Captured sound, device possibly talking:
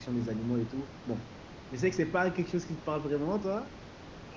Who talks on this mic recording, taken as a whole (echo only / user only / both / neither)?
user only